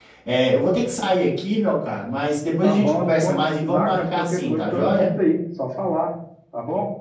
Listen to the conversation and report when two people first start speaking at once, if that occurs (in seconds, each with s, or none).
2.6 s